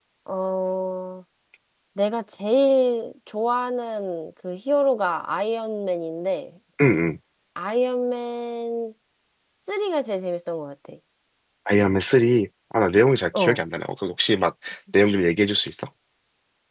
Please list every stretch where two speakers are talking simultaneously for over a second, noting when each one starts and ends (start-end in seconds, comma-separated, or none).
none